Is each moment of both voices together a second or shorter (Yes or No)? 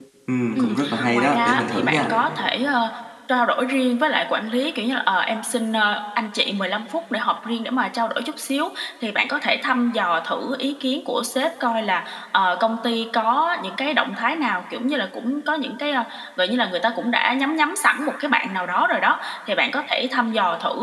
No